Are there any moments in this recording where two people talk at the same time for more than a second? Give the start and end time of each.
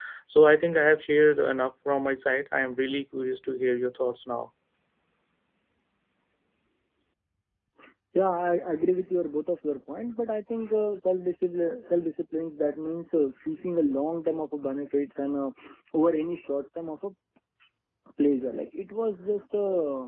none

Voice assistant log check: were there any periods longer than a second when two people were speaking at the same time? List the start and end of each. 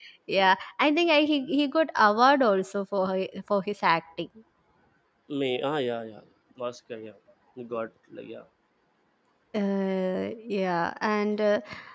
none

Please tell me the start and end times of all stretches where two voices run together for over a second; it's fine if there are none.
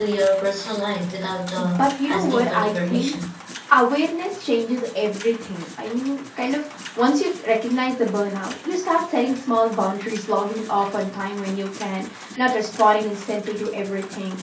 1.6-3.1

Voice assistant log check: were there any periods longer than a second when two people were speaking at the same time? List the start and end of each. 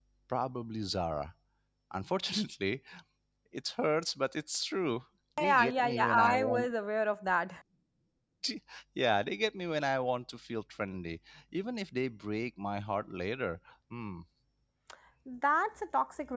5.4-6.7

